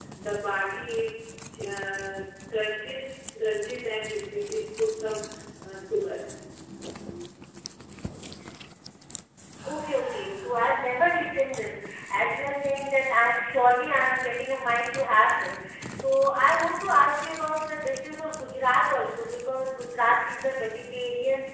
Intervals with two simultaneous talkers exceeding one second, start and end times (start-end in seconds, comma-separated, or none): none